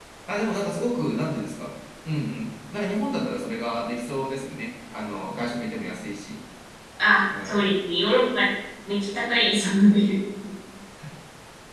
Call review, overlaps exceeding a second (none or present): none